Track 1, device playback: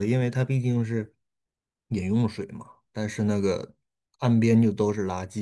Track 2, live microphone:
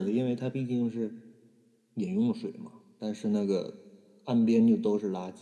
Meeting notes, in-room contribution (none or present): none